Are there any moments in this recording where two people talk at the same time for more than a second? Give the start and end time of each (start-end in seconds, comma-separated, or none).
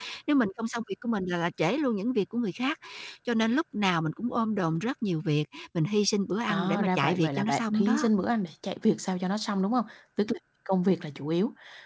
6.5-8.1